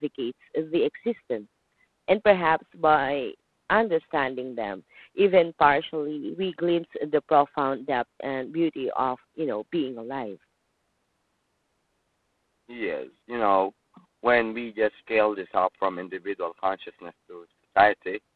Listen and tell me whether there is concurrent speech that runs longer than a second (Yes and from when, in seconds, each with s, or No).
No